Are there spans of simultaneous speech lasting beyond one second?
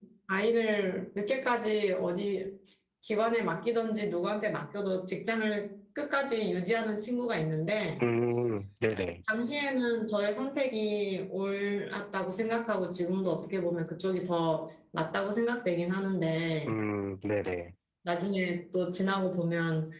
No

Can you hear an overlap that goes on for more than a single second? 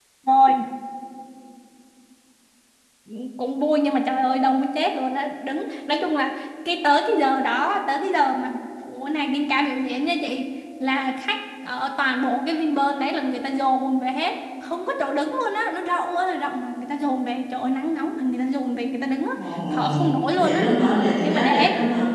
No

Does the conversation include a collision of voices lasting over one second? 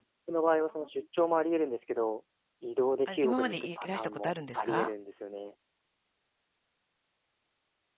Yes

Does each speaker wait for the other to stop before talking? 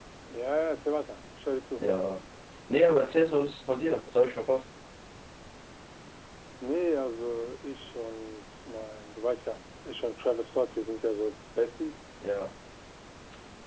Yes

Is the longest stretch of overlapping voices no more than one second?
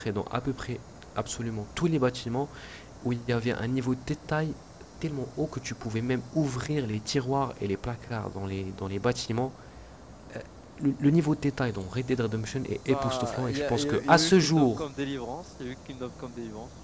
No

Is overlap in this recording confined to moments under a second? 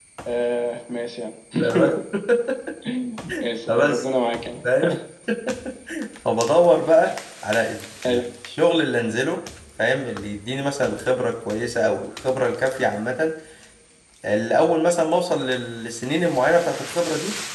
Yes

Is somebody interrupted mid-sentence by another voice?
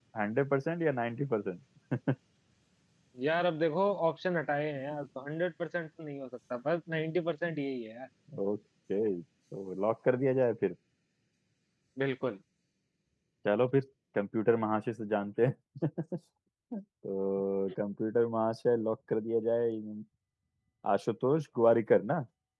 No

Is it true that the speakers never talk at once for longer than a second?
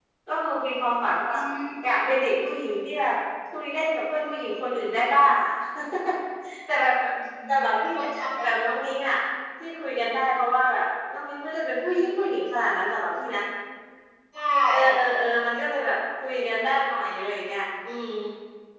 Yes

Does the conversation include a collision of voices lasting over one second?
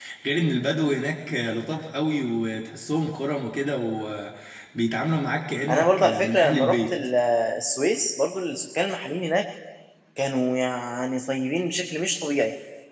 Yes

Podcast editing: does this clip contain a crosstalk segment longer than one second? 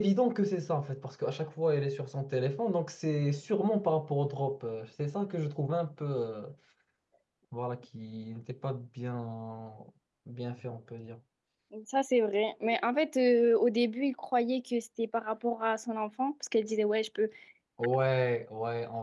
No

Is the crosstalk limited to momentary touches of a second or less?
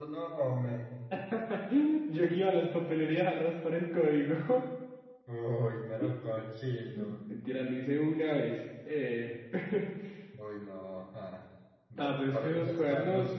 No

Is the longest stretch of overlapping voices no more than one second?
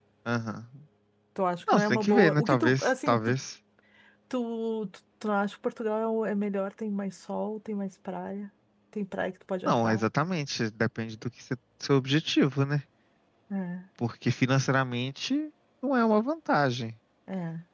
No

